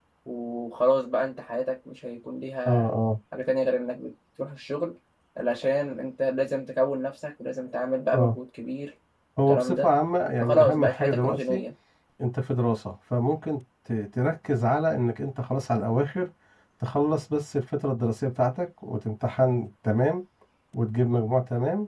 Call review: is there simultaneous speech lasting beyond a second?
Yes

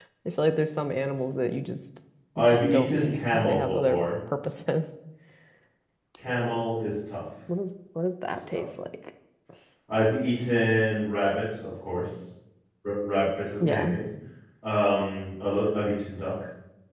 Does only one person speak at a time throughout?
No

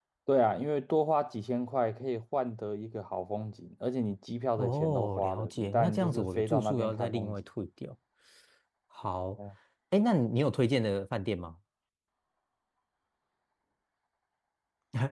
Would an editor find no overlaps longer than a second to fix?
No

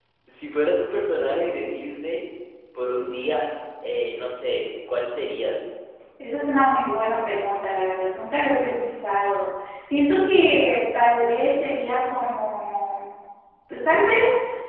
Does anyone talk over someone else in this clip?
No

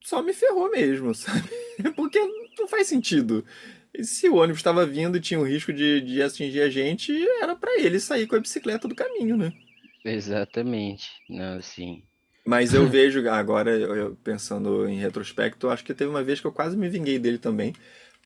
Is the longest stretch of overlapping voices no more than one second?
Yes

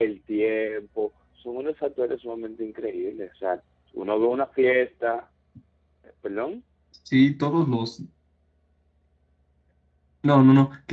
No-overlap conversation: Yes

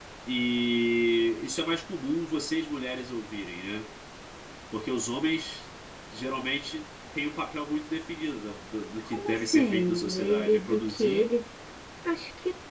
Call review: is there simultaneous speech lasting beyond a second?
Yes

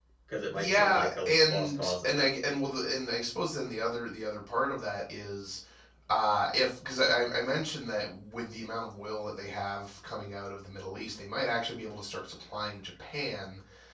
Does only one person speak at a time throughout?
No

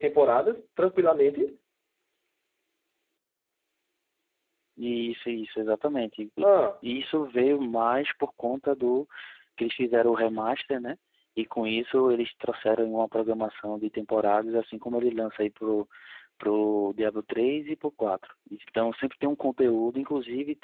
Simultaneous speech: No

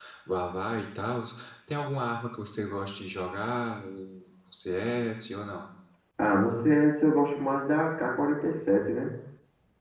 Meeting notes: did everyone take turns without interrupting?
Yes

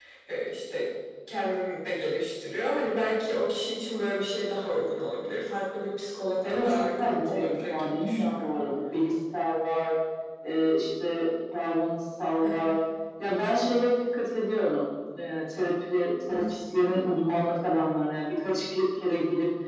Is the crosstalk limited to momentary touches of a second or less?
No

